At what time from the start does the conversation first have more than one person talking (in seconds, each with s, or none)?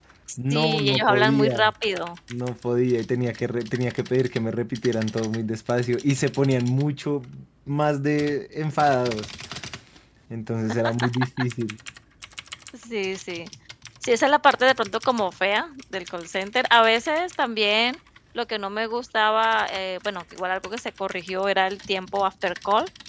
0.5 s